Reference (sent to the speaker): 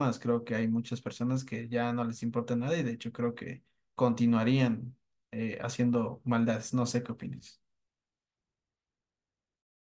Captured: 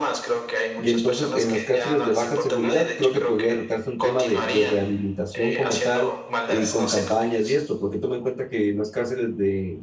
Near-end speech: present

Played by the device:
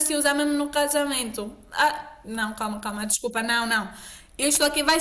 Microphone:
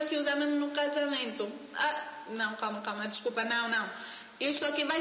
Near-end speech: none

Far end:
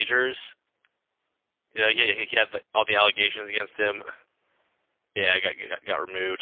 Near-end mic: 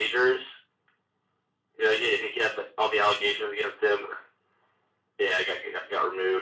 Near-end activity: none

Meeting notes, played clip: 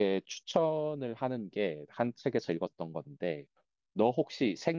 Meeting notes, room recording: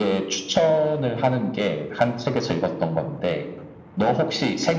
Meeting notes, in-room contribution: none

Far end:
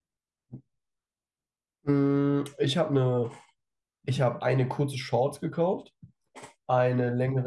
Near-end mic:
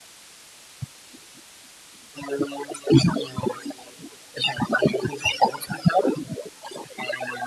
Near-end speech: none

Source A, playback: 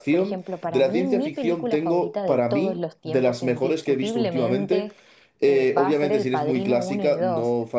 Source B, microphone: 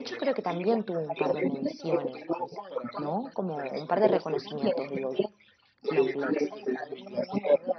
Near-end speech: present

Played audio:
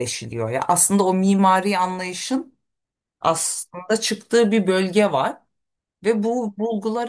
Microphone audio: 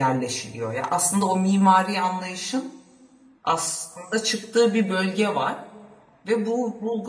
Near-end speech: none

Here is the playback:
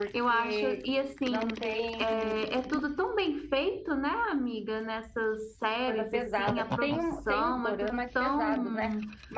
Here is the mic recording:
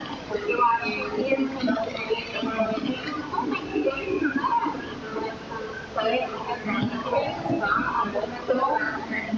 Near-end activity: none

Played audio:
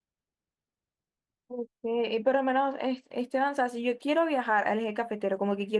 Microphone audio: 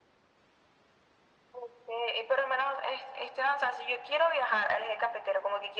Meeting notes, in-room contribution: none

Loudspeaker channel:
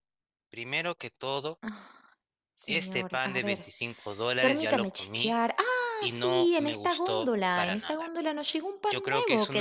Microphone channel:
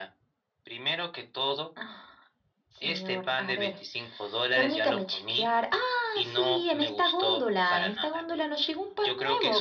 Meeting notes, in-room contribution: none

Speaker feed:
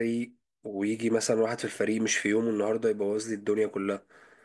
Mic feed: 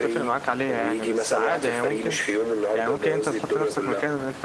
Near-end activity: present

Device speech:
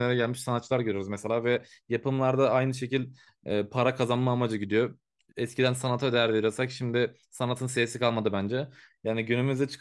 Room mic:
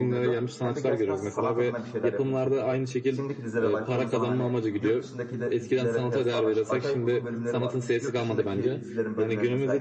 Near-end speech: present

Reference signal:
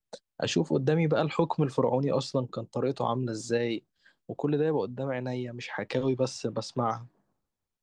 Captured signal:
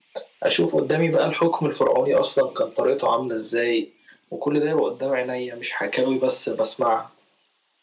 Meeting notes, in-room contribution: none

